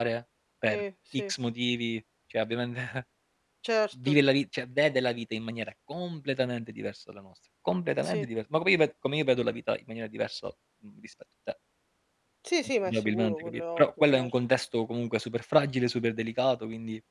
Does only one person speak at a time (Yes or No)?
No